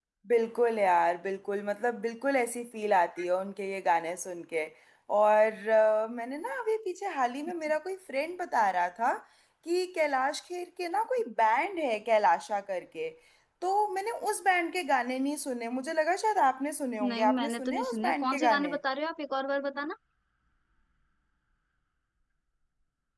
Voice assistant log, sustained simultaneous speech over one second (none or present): present